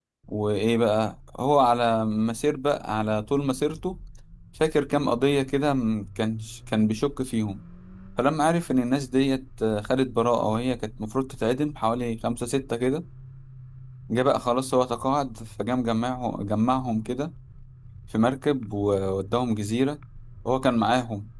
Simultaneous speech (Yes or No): No